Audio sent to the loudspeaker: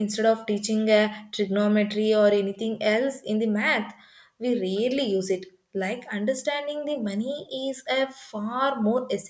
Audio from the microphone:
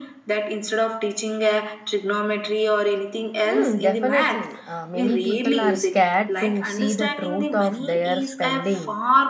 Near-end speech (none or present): present